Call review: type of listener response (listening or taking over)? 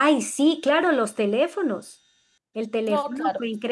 listening